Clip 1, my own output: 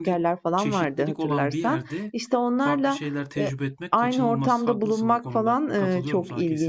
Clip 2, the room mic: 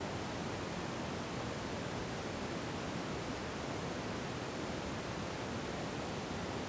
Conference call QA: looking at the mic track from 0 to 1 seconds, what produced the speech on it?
neither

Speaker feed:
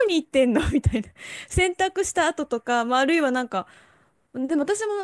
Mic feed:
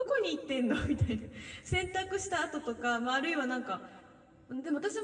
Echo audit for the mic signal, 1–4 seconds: echo only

